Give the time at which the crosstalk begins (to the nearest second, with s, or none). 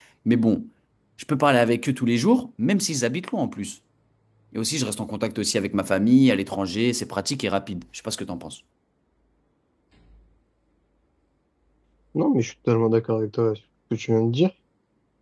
none